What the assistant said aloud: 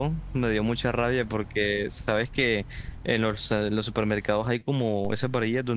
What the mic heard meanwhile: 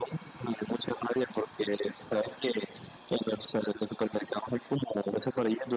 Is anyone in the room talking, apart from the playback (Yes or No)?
No